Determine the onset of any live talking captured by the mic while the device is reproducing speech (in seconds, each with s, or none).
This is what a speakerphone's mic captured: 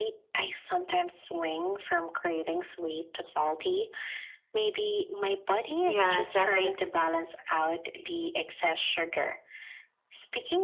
5.8 s